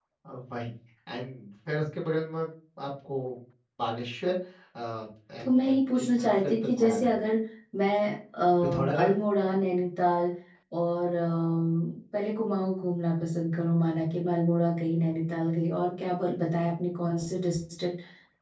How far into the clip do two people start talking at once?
5.4 s

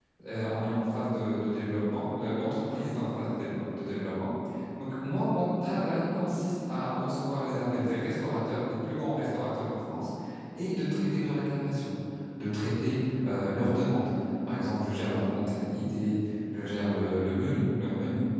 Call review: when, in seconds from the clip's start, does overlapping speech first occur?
none

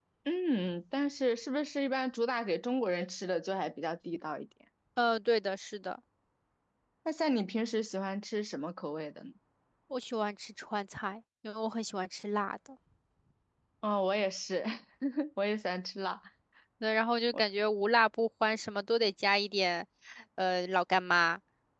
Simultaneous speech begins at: none

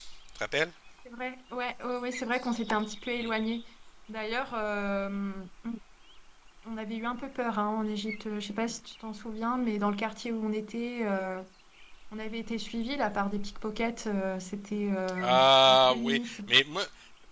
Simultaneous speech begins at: 15.2 s

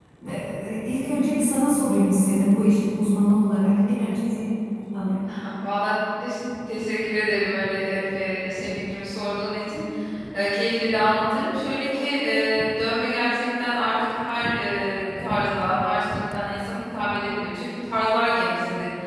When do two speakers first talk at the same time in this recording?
none

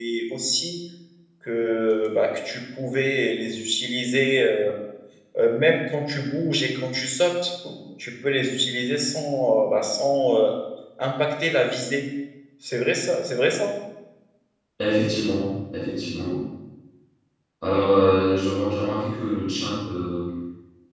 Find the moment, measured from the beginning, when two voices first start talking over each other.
none

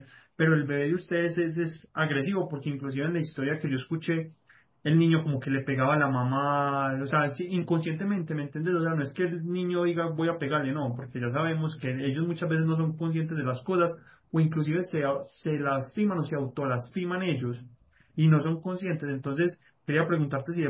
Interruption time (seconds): none

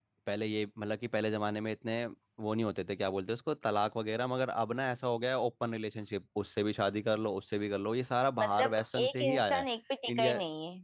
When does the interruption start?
8.4 s

